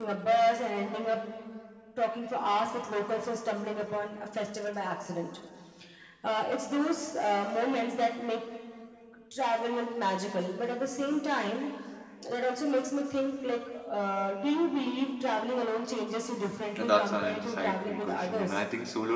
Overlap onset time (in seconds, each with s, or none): 16.8 s